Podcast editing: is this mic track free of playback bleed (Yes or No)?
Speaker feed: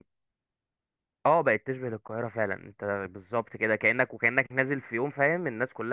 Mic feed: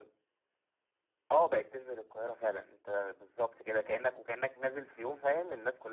No